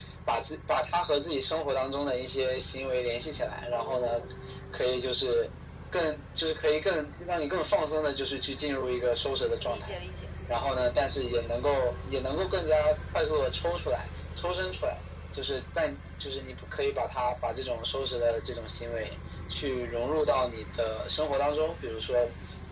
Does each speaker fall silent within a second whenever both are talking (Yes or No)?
Yes